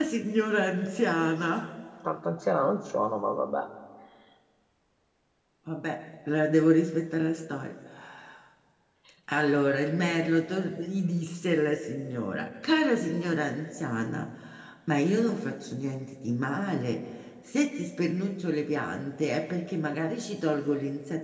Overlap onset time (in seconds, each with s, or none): none